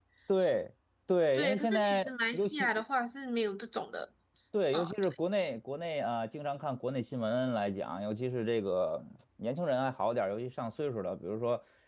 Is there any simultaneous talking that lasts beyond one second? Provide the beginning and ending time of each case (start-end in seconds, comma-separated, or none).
1.3-2.7